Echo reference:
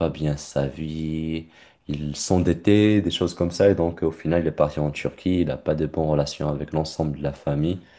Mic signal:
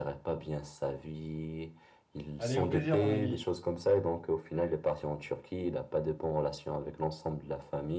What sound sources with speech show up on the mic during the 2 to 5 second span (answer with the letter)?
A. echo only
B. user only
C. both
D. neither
C